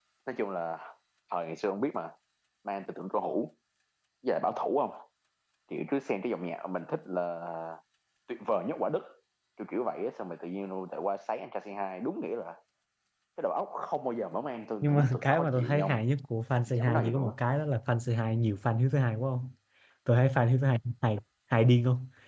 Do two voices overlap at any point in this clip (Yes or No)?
Yes